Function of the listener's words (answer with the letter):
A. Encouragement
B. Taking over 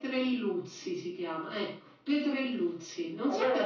A